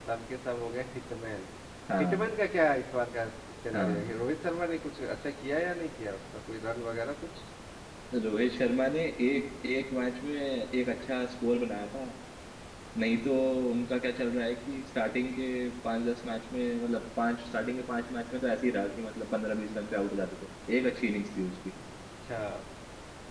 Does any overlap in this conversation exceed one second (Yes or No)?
No